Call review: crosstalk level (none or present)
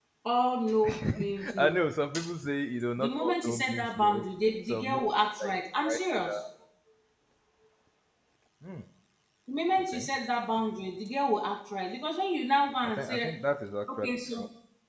present